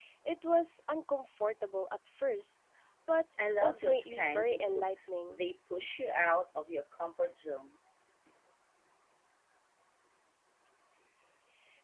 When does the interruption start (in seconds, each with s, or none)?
3.6 s